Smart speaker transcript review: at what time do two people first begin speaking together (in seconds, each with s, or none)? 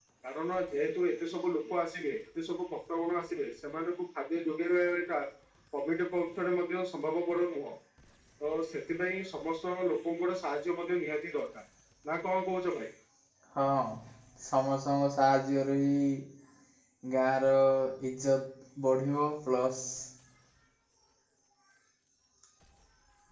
none